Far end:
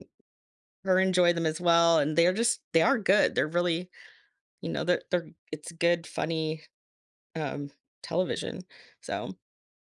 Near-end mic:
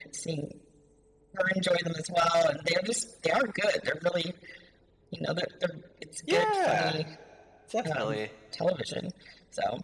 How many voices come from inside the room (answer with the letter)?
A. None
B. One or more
B